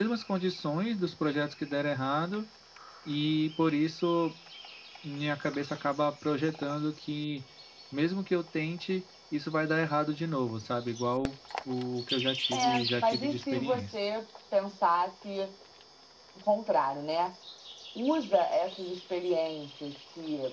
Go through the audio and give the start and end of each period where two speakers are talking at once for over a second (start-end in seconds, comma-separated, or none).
12.5-14.0